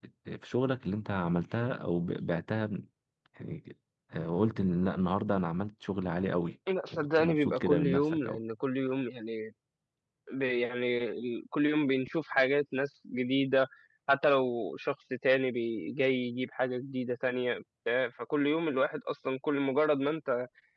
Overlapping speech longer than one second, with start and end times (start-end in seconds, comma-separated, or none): 6.9-8.4